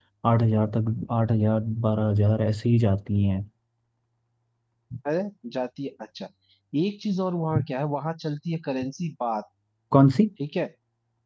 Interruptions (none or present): none